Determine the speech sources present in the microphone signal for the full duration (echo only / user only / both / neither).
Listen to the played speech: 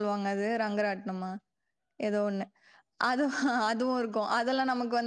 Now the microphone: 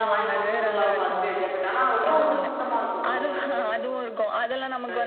both